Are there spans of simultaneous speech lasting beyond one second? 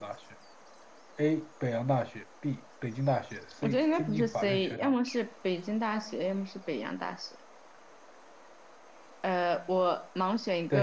Yes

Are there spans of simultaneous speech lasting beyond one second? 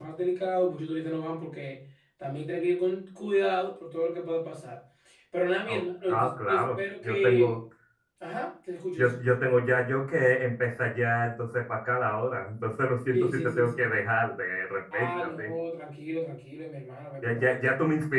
Yes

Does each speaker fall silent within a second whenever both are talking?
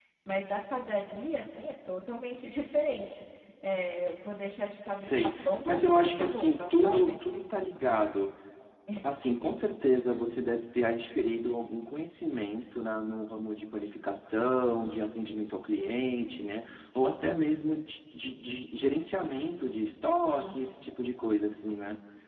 No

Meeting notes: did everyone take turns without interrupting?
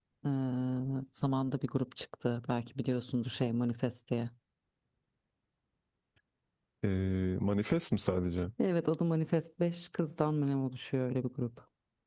Yes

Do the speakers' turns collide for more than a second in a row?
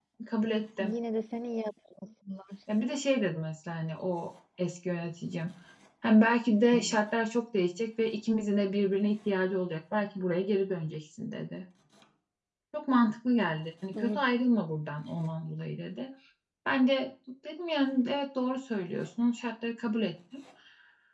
No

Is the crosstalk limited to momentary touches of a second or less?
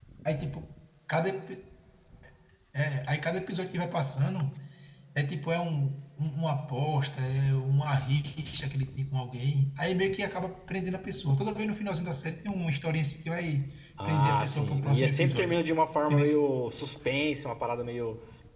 No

